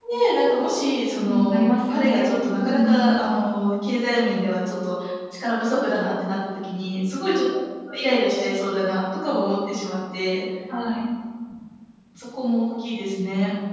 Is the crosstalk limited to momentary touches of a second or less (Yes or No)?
No